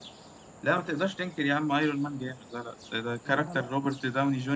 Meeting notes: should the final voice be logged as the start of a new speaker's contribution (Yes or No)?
No